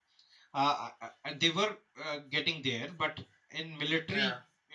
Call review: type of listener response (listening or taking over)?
listening